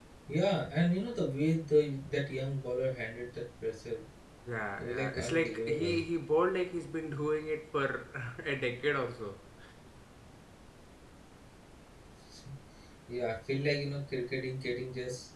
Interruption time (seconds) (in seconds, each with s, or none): 4.8 s